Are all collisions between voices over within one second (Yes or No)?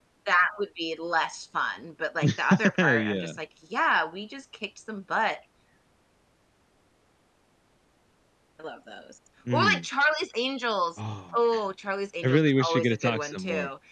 No